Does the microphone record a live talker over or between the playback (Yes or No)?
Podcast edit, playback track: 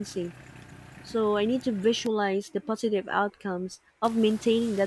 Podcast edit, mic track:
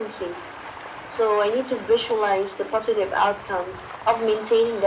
No